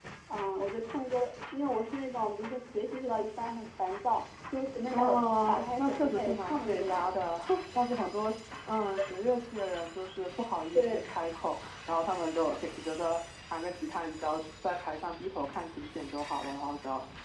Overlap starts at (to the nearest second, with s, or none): 5 s